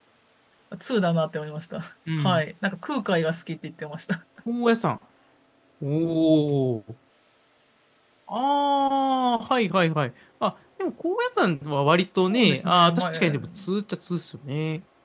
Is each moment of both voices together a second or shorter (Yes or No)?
No